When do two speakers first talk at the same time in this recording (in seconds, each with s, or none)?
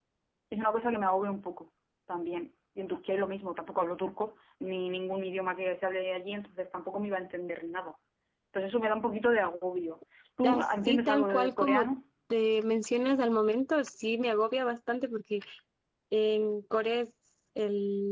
10.4 s